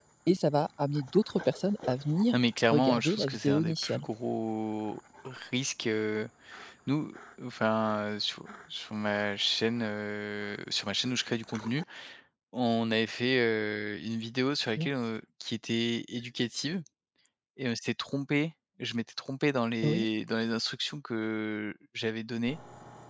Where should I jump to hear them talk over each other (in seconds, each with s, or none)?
2.7 s